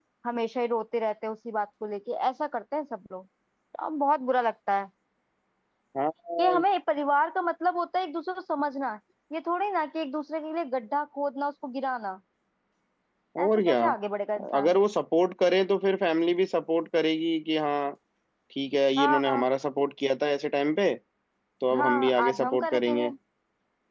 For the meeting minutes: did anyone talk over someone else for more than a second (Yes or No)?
Yes